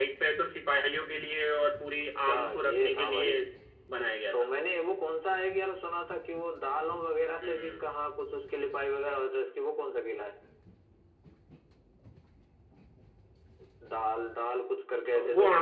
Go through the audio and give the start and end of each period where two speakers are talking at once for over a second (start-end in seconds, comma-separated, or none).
2.0-3.3